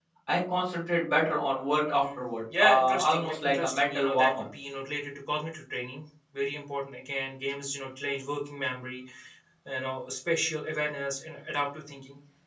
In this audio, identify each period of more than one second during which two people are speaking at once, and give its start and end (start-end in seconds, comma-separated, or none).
2.6-4.4